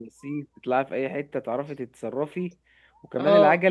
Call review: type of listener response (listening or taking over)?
listening